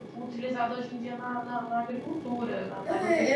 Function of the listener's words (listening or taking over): taking over